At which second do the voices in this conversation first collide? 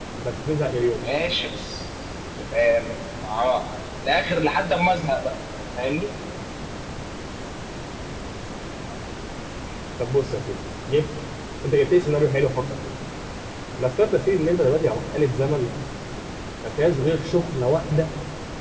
none

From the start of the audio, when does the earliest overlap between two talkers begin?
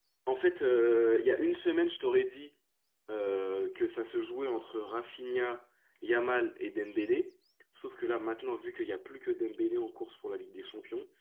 none

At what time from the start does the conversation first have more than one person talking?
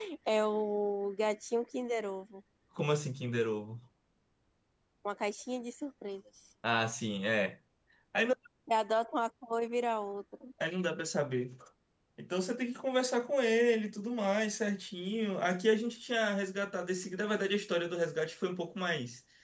none

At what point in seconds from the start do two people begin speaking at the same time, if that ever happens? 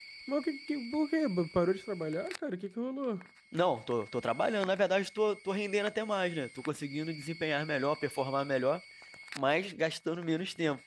none

